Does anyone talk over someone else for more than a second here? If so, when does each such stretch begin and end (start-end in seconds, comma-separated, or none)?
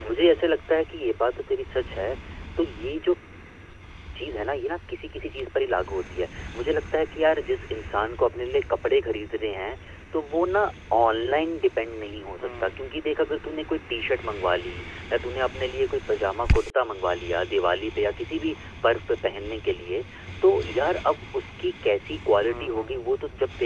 none